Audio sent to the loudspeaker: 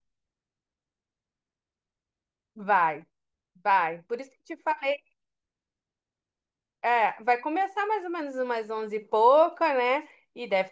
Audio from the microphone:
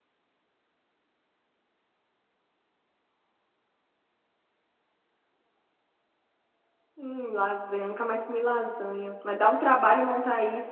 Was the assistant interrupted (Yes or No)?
Yes